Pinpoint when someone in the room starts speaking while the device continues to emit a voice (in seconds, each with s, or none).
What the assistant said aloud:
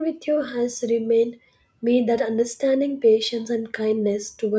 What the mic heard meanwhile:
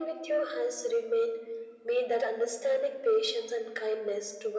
none